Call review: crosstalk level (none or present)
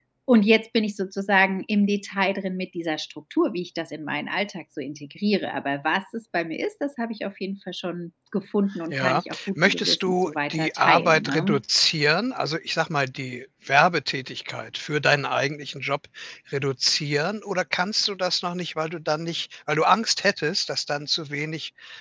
present